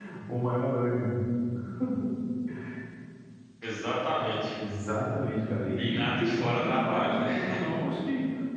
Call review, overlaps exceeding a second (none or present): present